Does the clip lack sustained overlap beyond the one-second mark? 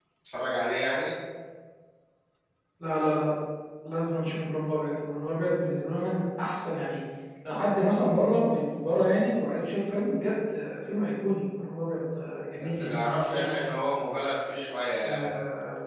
No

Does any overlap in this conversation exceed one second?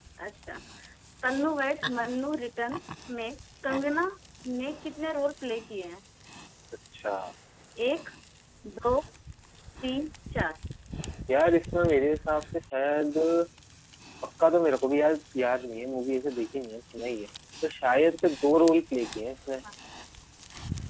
No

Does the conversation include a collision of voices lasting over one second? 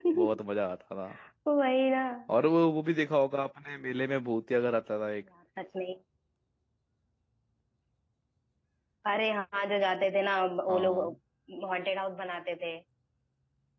No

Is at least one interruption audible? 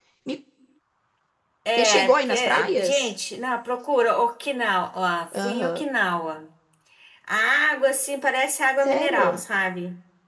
Yes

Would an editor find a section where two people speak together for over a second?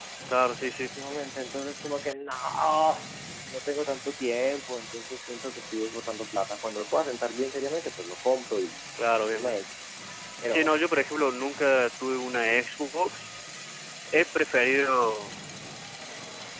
No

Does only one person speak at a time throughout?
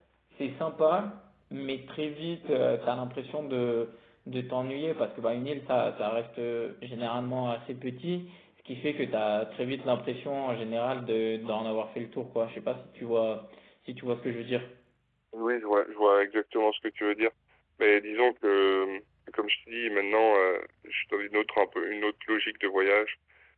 Yes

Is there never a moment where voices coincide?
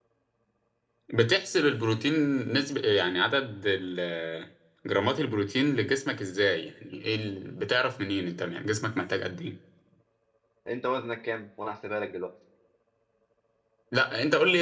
Yes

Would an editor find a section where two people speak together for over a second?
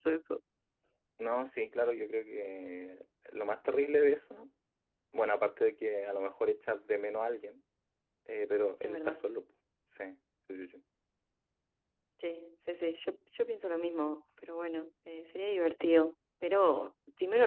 No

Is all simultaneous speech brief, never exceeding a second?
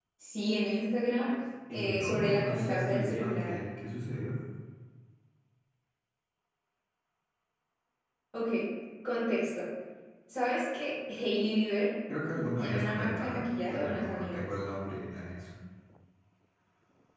No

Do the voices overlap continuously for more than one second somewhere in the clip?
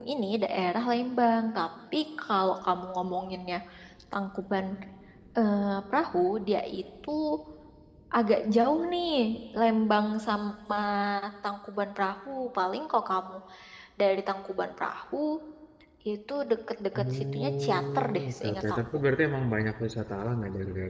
Yes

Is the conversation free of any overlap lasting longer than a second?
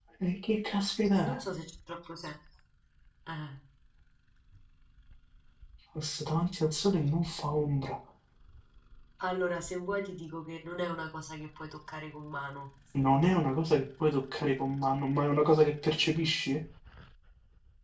Yes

